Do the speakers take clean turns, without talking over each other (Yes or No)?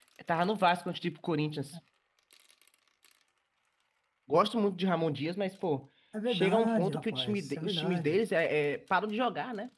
No